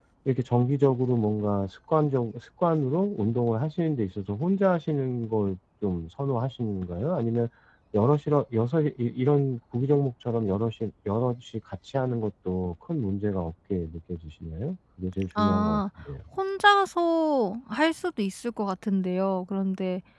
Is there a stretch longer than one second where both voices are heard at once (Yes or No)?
No